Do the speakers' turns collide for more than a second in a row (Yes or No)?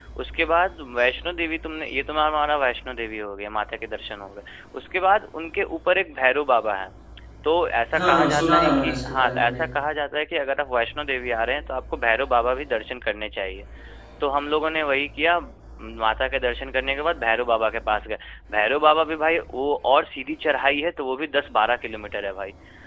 Yes